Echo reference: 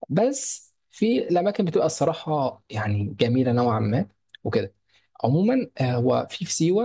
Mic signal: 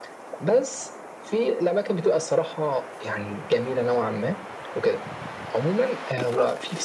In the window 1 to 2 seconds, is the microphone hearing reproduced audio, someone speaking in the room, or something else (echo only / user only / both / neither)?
echo only